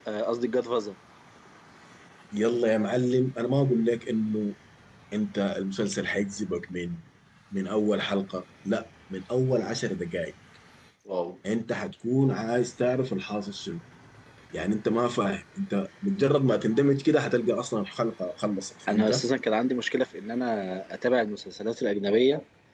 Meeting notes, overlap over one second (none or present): none